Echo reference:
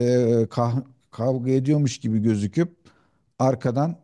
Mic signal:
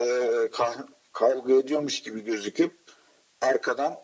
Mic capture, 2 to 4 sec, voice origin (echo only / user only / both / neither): echo only